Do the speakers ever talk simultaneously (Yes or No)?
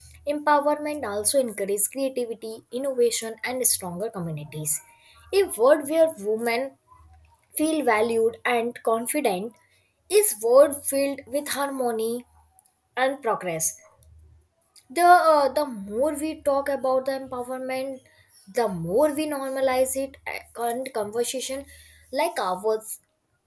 No